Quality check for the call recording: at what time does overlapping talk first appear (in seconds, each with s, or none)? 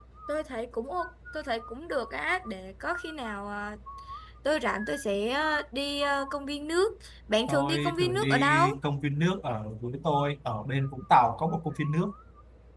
7.5 s